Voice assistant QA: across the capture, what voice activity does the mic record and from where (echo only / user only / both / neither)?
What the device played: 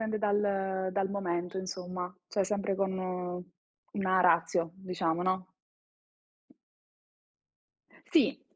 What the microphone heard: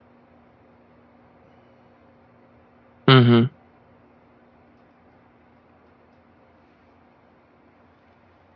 user only